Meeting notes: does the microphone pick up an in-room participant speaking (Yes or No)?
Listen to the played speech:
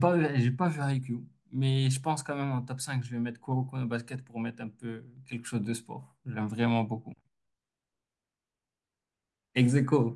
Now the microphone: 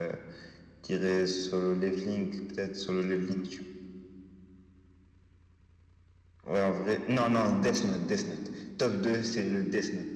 Yes